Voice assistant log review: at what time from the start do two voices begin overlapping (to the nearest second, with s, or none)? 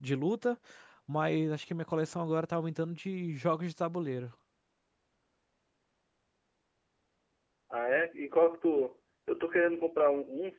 none